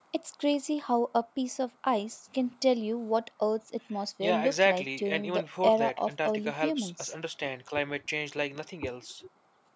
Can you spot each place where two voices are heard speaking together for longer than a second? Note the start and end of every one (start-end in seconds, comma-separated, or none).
4.2-7.1